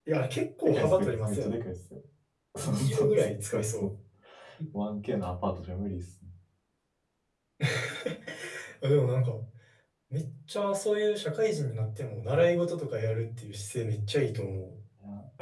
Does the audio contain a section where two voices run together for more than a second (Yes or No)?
Yes